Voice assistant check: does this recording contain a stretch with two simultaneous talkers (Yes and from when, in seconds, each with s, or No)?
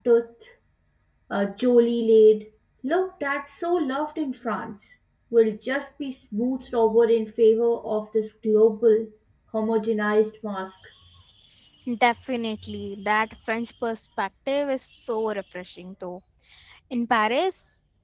No